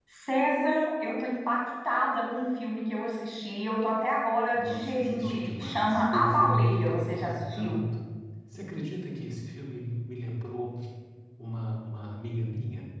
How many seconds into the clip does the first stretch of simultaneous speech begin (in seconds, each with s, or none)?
4.5 s